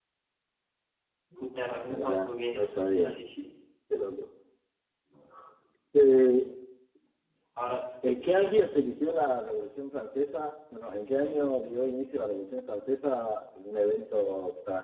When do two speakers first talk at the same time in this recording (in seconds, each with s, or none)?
1.9 s